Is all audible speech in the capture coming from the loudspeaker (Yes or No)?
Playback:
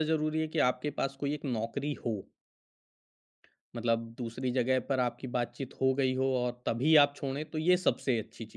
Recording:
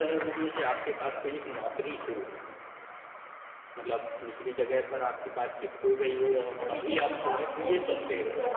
No